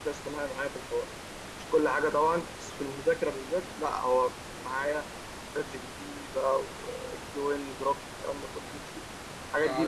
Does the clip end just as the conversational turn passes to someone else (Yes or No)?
Yes